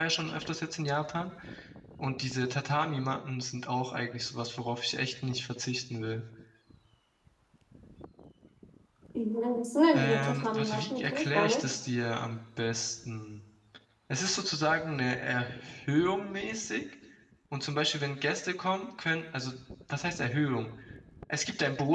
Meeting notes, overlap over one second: present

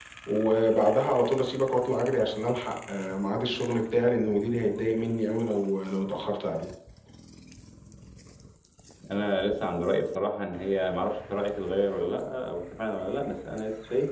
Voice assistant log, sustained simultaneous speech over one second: none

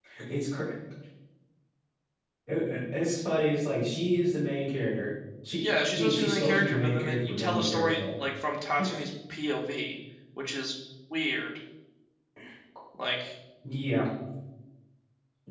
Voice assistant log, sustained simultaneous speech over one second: present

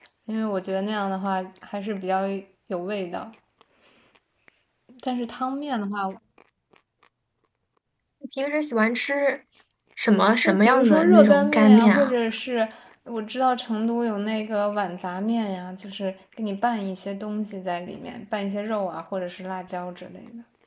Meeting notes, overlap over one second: present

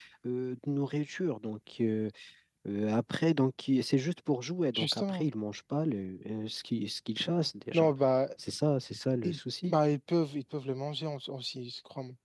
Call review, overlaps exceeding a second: none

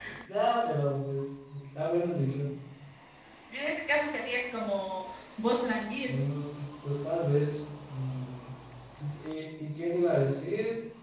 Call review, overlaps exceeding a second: none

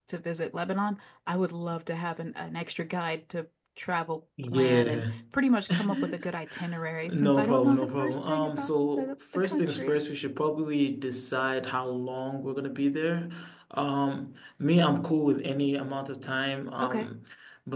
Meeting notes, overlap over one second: present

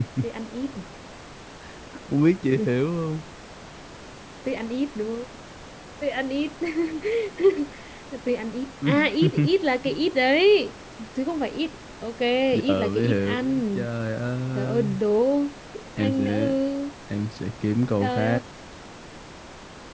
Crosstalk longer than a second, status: present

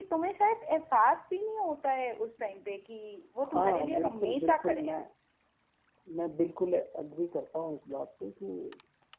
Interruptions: present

